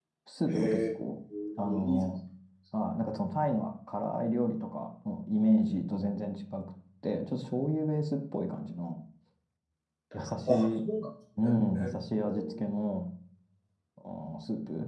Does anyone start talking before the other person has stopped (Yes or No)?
Yes